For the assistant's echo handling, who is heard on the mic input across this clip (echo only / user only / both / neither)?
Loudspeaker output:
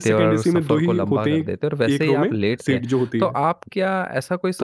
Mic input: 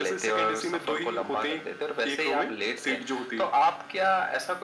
echo only